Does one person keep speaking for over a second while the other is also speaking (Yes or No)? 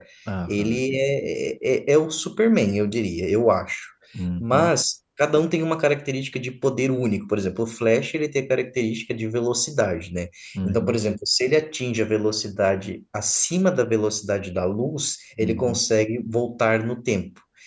No